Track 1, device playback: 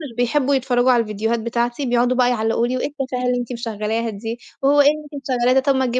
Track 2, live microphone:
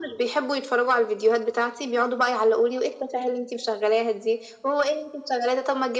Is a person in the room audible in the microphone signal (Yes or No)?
No